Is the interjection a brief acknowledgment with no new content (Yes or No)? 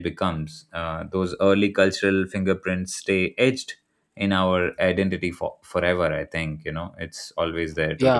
No